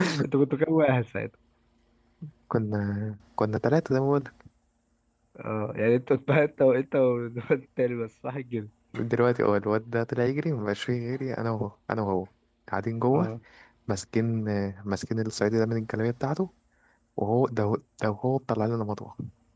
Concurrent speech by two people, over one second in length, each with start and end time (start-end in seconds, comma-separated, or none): none